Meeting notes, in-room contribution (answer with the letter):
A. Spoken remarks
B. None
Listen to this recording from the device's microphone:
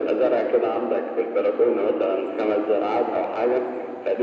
B